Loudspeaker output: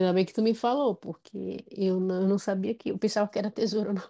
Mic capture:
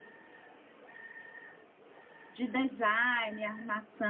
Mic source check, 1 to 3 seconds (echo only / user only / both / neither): user only